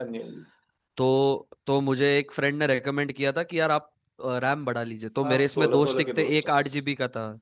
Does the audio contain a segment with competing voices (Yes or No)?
Yes